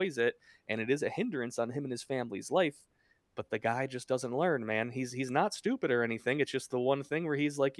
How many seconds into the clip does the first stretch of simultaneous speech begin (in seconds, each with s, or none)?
none